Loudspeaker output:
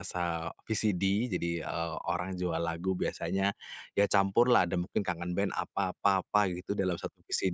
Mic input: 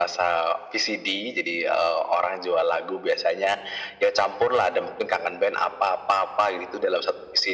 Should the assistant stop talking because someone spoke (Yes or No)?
No